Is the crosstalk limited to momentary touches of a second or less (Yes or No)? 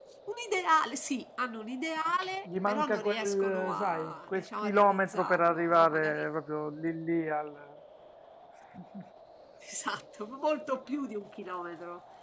No